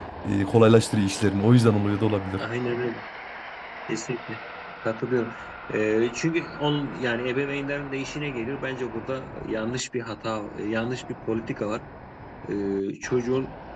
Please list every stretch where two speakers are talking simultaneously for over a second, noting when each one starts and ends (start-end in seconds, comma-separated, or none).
none